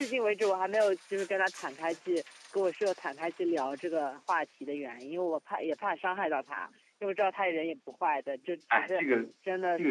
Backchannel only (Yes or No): No